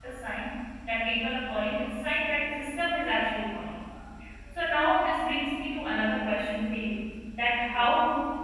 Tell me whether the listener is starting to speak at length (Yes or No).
No